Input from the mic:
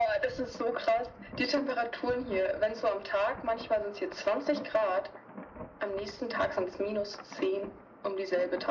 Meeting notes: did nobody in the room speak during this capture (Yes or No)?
Yes